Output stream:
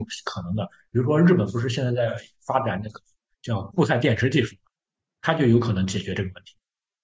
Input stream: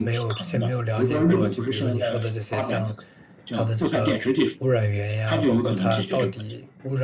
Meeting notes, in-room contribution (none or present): present